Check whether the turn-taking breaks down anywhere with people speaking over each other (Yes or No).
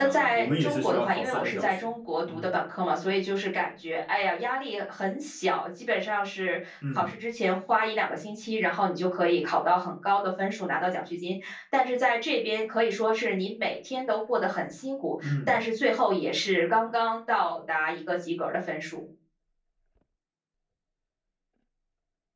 Yes